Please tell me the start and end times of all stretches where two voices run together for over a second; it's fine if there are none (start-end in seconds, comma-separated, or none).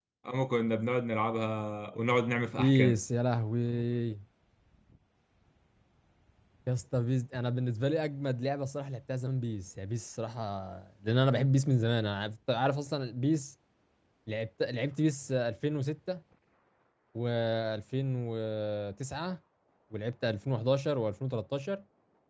none